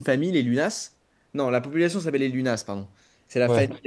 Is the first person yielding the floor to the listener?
No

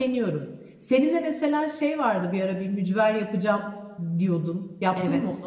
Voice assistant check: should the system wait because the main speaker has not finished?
No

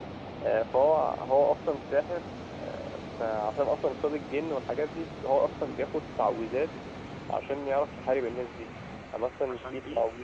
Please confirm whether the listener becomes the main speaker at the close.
No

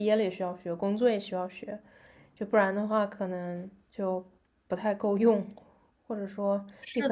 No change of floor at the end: No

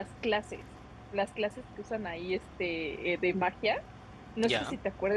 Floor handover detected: No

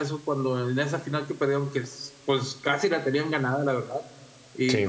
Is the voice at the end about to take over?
No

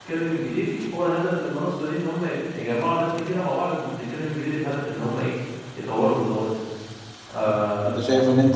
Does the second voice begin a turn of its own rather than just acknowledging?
Yes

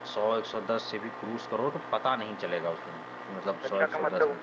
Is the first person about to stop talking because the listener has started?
Yes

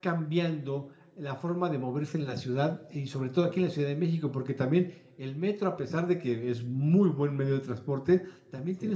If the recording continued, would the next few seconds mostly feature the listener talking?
No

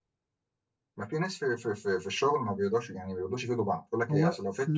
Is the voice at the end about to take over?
Yes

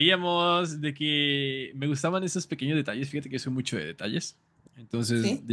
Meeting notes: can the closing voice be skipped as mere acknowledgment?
Yes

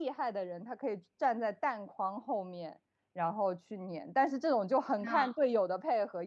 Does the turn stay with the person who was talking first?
Yes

